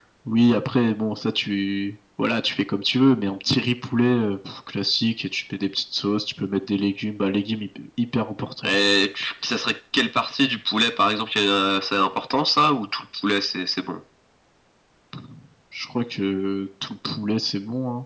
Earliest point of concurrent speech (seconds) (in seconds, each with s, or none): none